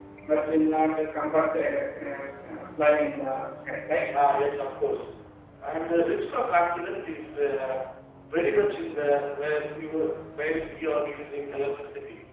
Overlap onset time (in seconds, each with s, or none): none